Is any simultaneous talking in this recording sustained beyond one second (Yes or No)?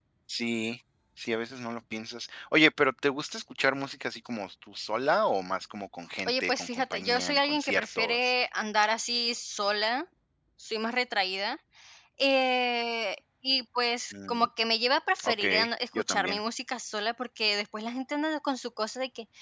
Yes